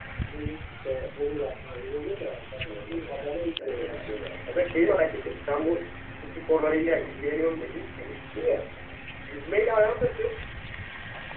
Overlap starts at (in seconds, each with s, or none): 2.6 s